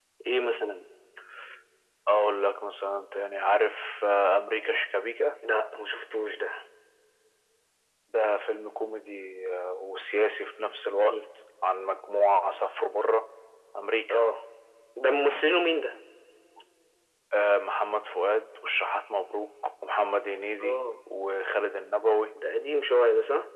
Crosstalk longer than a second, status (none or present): none